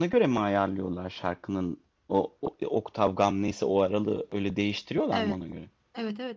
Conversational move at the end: taking over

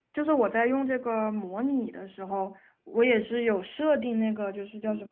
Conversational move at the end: listening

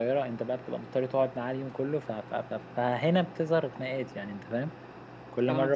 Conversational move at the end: listening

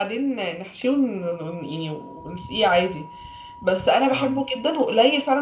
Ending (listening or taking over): listening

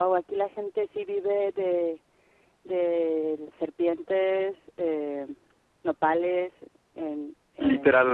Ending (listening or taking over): taking over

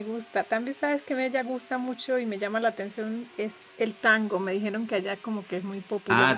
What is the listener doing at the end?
taking over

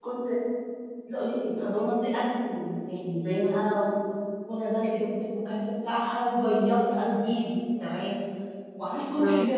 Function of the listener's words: listening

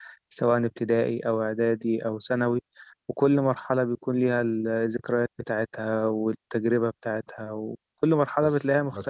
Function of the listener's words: taking over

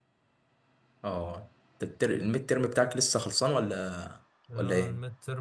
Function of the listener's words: taking over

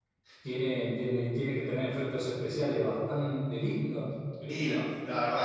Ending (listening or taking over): taking over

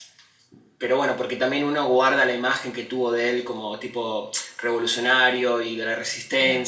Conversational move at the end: taking over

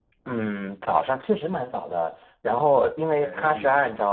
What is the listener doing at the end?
listening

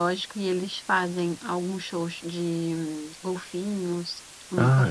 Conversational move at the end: taking over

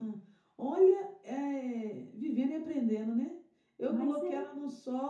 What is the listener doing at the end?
listening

